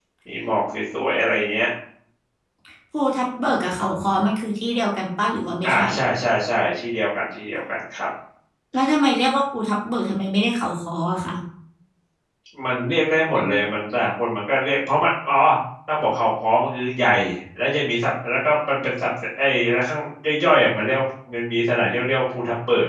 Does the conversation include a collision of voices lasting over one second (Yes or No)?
No